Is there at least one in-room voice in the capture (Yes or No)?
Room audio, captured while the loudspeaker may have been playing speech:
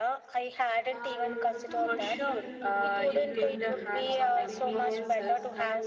Yes